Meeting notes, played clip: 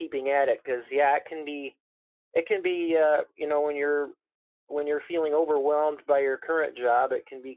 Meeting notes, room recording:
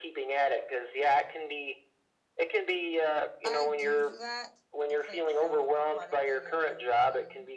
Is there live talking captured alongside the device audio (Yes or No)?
Yes